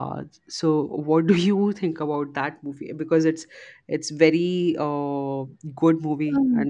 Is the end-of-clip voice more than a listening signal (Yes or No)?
Yes